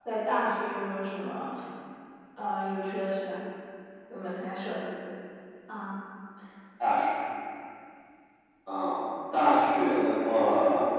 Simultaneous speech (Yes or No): No